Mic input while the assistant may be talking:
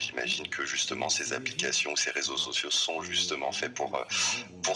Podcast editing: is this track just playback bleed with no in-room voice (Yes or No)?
No